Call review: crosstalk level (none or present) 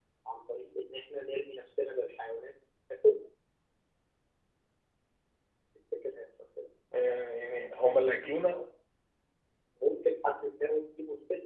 none